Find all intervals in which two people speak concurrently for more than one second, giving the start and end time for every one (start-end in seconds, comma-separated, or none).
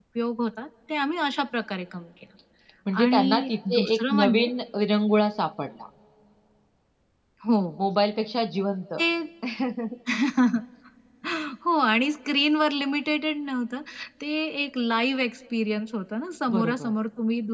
3.0-4.5